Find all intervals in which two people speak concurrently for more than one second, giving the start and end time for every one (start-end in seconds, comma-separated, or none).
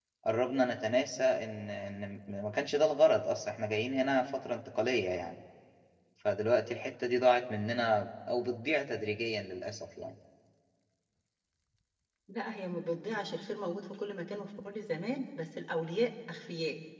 none